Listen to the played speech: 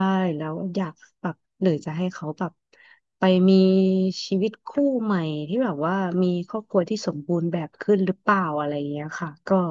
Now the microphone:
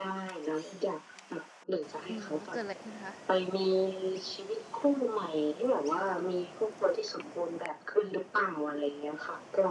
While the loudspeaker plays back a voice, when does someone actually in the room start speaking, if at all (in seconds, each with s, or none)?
2.1 s